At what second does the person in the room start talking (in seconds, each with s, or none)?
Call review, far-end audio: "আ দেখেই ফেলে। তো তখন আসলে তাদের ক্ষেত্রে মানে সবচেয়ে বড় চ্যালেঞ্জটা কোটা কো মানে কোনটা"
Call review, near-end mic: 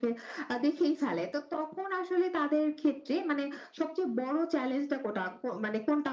none